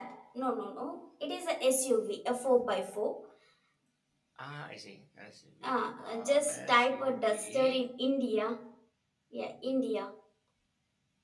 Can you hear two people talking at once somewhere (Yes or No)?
Yes